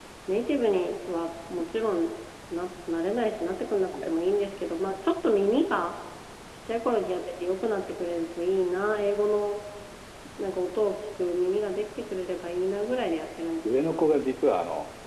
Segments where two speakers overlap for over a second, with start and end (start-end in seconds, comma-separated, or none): none